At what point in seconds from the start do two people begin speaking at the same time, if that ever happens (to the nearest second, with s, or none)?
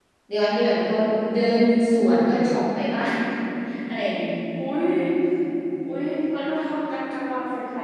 none